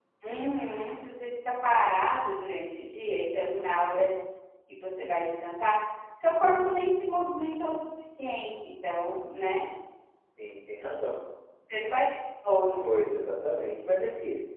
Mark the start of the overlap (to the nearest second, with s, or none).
none